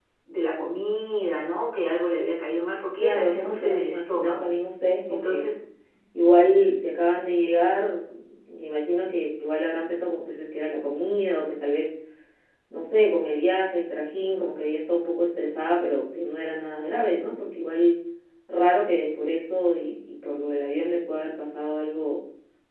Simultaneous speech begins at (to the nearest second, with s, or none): 3 s